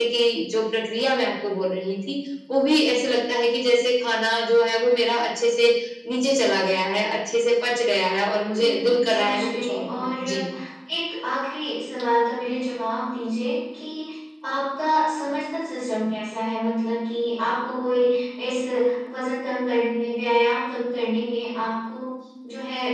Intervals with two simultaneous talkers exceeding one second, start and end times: 8.6-10.2

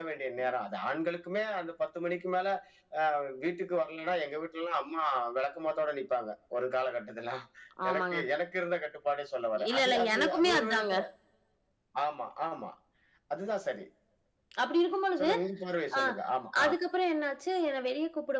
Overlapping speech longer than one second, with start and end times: 9.7-10.9

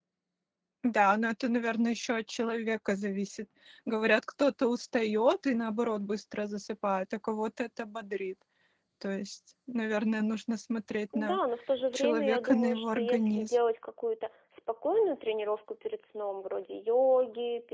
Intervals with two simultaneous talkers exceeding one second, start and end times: 11.9-13.5

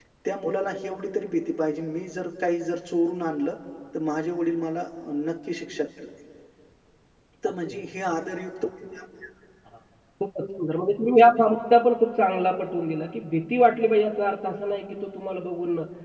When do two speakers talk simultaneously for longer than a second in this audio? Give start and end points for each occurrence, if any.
none

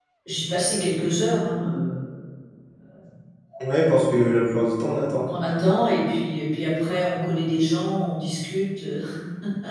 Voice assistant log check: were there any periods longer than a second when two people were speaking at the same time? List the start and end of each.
none

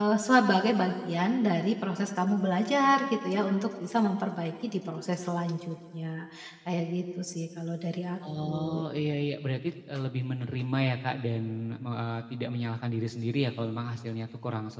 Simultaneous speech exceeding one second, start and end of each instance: none

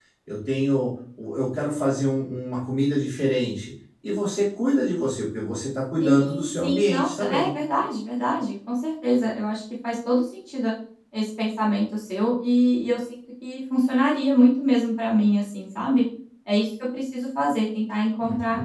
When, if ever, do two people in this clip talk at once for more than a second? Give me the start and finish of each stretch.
6.0-7.5

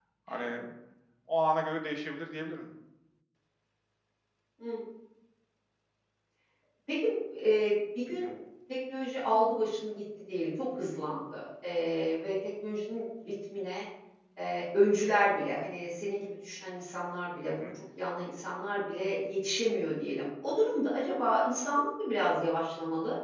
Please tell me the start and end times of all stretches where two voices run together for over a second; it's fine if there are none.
none

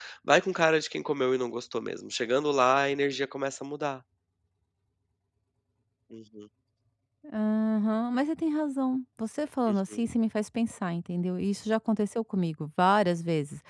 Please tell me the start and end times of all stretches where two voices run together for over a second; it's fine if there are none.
none

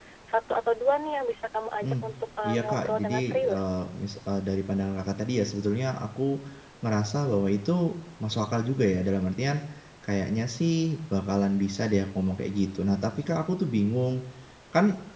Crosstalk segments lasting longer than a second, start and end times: 2.4-3.7

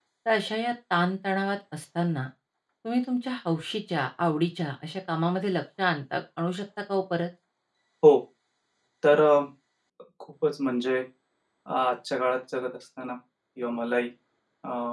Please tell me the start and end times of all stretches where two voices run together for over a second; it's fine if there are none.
none

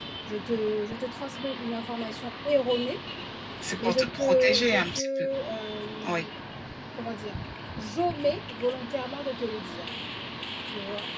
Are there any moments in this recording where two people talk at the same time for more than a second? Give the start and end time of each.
3.8-5.1

